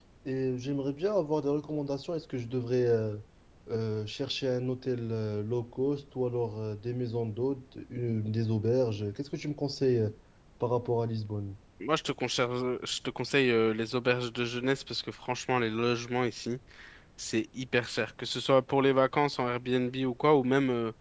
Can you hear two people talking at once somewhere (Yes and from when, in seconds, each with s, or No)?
No